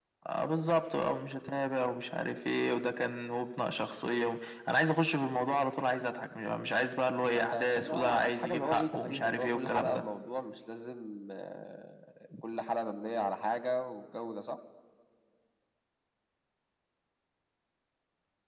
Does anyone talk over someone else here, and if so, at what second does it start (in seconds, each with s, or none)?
7.3 s